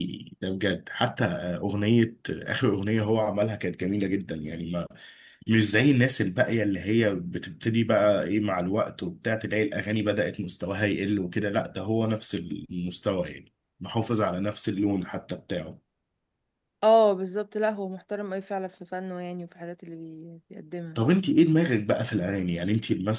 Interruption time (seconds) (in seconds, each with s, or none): none